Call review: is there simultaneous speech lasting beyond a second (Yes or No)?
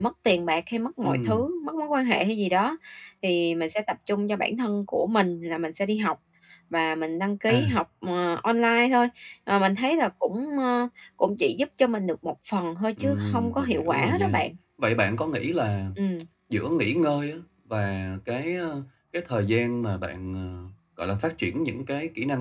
Yes